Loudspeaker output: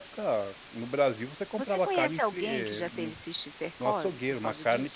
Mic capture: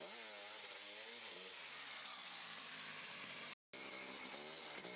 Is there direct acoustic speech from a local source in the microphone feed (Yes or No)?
No